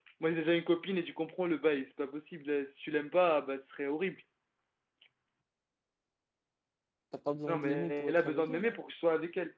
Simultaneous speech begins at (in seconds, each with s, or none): 7.5 s